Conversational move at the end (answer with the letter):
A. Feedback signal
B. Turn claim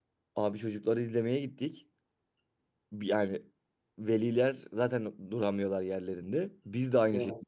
A